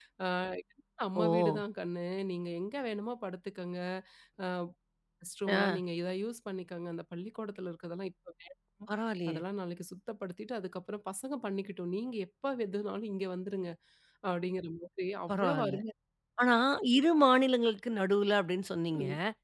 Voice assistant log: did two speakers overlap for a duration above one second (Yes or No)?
No